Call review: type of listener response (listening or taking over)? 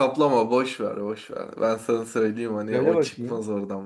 listening